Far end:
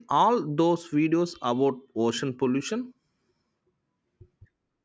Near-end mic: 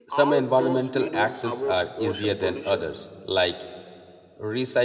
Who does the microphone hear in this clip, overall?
both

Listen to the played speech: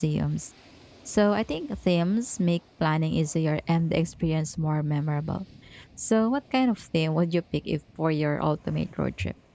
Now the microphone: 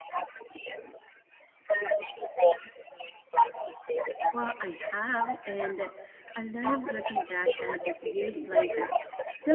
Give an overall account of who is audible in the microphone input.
both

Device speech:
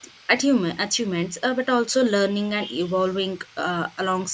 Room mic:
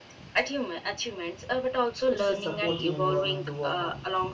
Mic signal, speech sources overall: both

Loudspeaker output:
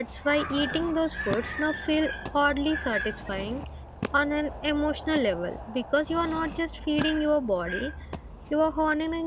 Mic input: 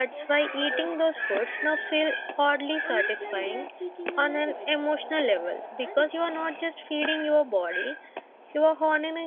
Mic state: both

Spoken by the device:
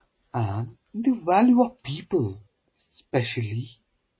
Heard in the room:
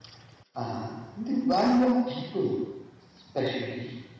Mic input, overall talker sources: echo only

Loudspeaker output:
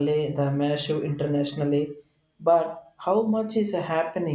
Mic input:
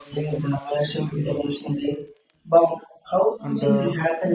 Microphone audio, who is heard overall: both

